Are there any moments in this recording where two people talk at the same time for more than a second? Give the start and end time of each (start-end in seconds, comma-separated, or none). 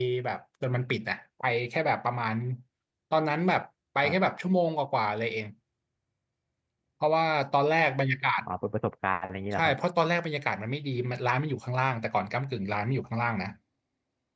none